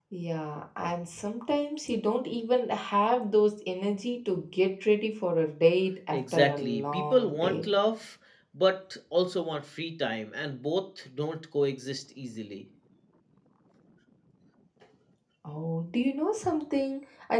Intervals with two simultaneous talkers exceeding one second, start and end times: 6.1-7.7

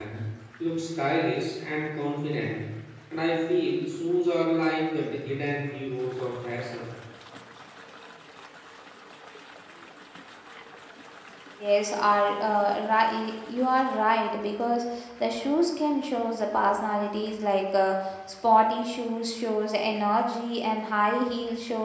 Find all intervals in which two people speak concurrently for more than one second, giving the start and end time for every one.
none

